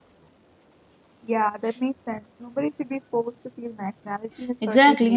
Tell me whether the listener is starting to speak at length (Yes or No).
Yes